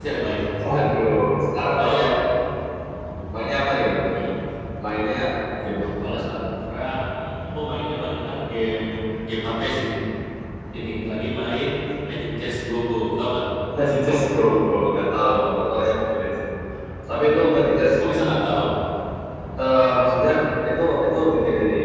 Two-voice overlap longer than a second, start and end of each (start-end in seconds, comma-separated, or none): none